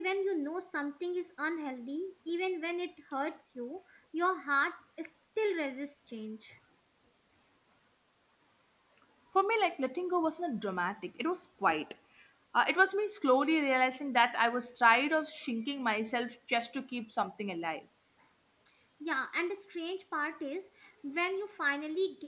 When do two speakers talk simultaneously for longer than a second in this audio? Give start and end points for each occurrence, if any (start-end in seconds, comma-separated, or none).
none